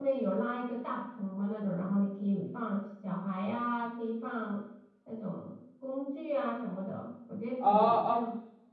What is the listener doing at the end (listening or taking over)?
taking over